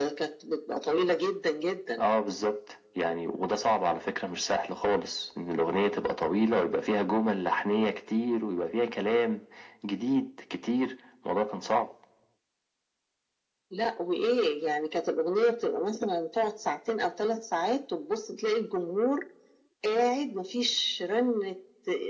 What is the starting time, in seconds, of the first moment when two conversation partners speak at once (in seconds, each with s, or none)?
none